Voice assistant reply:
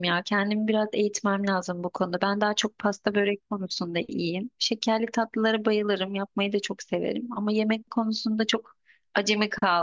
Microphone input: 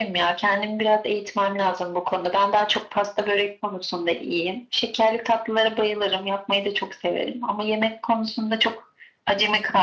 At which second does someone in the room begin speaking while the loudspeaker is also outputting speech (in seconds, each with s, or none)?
none